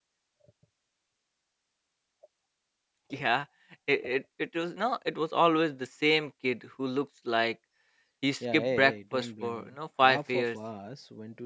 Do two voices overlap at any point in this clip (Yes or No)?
Yes